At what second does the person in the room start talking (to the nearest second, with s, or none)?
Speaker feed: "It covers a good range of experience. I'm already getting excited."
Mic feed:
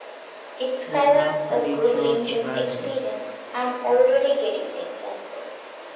1 s